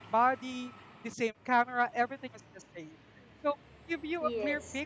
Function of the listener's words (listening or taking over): listening